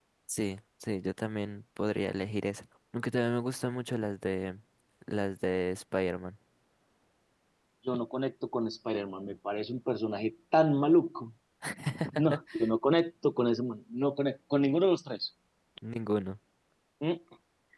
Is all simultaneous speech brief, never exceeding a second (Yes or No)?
Yes